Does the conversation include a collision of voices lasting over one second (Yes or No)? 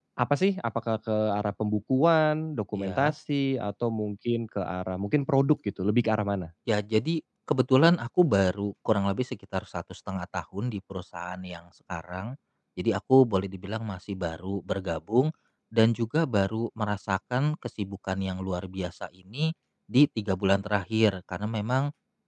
No